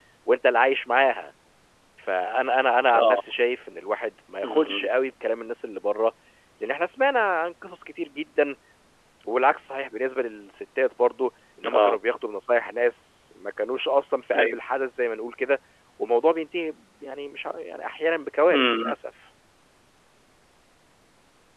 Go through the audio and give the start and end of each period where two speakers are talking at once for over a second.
none

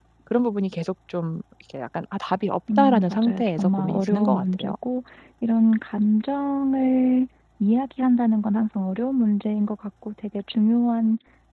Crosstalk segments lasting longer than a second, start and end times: 2.8-4.7

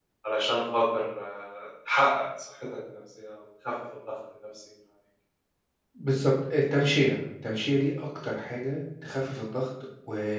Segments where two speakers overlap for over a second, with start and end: none

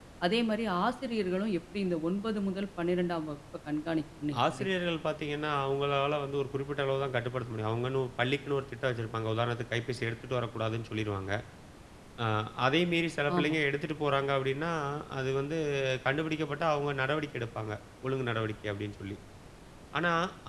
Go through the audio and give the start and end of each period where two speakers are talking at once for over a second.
none

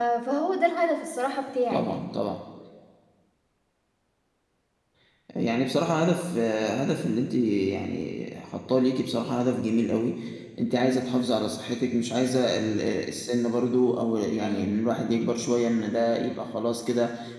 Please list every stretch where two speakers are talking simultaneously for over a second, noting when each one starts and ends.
none

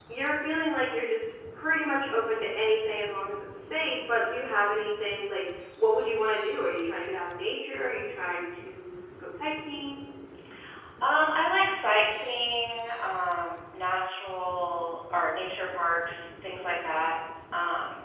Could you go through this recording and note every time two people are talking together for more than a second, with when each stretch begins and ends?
none

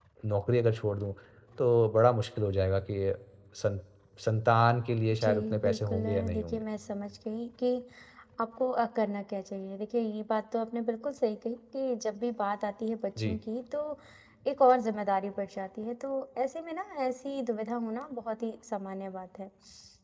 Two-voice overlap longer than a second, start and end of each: 5.2-6.6

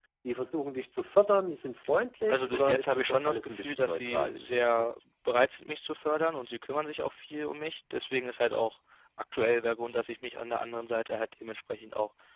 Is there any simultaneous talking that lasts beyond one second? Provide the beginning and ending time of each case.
2.3-4.9

